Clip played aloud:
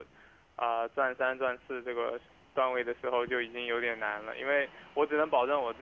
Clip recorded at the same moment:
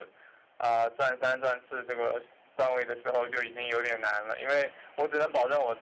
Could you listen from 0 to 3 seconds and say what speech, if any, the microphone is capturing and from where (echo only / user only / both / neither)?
echo only